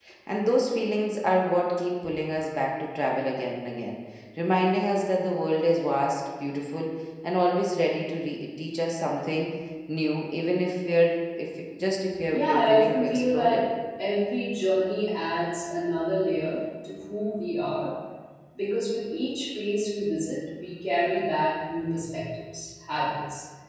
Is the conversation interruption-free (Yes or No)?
No